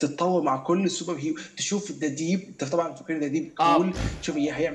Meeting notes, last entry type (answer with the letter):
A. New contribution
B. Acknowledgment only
B